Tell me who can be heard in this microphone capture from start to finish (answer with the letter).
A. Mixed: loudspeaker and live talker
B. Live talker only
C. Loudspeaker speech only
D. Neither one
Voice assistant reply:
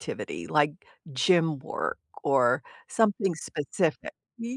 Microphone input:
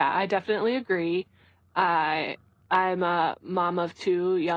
B